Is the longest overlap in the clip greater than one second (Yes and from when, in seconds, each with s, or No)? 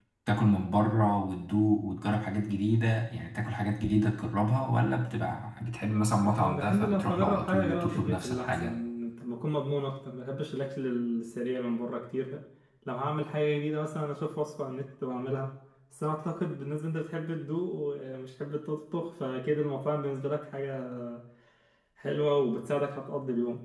Yes, from 6.2 s